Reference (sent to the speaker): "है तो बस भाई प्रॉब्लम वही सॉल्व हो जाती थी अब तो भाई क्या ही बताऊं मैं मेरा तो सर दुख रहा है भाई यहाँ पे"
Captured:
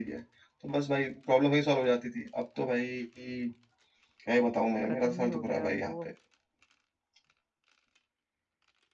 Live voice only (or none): खत्म ही हो गया अब वो